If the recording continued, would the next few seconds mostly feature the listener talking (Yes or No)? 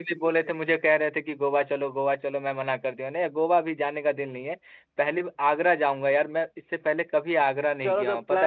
Yes